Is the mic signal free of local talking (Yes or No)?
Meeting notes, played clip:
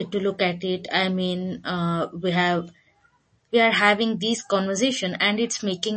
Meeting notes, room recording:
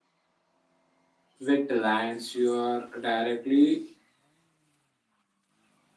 No